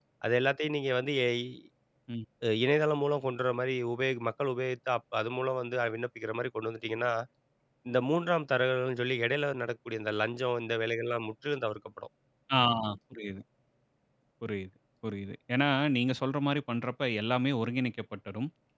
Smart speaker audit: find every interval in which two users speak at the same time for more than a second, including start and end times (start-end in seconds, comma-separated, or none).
none